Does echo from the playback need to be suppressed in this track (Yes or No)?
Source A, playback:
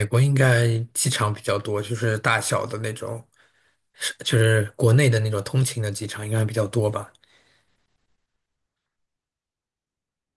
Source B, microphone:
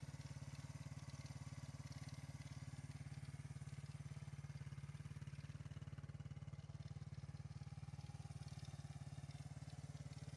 No